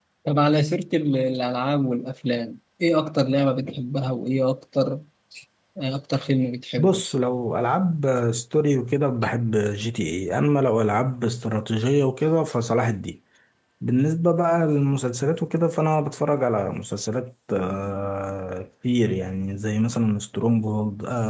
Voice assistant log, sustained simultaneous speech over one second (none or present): none